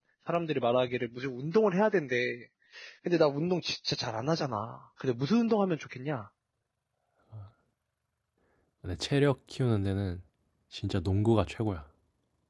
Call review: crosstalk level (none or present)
none